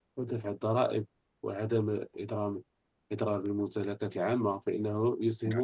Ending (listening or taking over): listening